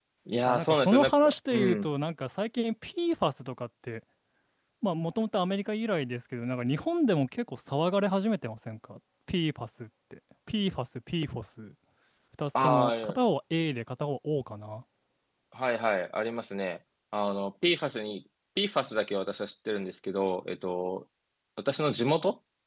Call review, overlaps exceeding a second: present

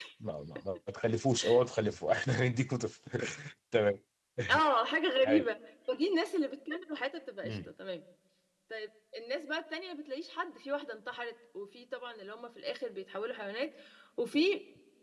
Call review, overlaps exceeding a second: none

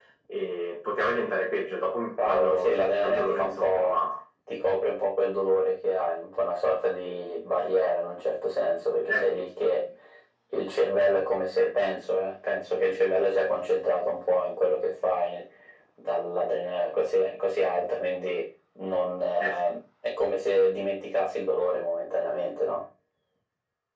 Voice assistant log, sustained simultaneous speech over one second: present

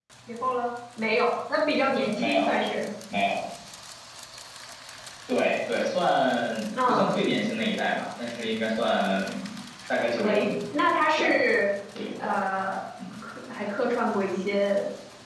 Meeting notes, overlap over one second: none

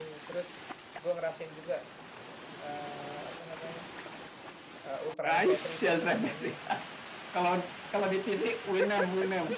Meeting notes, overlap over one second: present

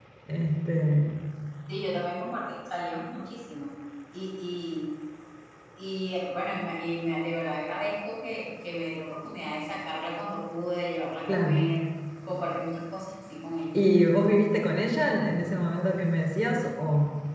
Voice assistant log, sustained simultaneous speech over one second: none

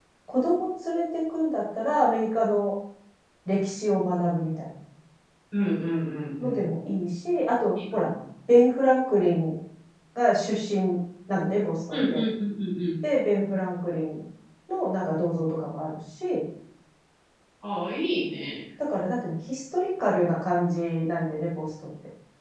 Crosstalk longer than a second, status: none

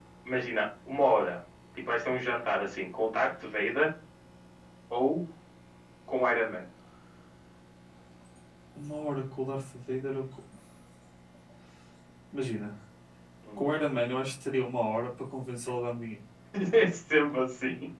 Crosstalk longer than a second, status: none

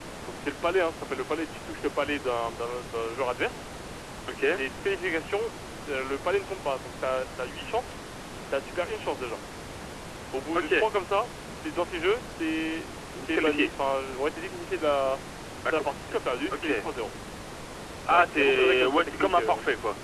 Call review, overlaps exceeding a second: present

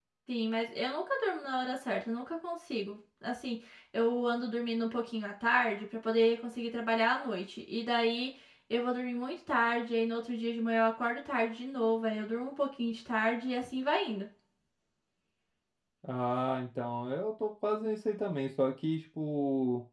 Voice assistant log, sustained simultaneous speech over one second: none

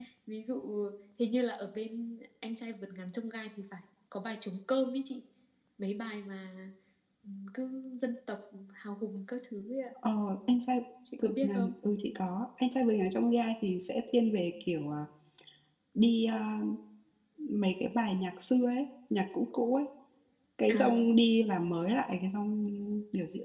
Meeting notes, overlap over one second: none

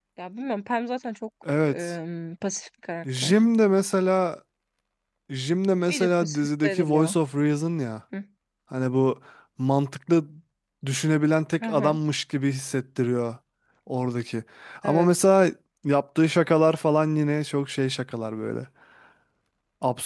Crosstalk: present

